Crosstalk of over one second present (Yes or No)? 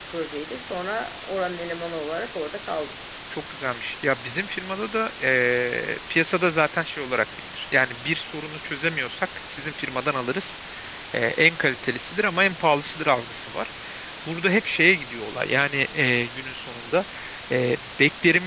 No